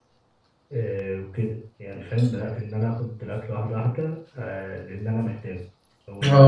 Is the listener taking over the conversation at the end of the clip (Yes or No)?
Yes